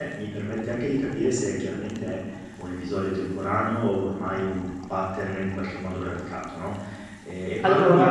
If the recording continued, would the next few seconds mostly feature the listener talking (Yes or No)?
No